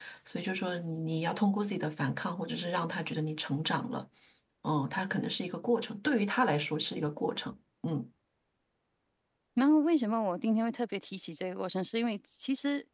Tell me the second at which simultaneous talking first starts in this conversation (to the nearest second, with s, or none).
none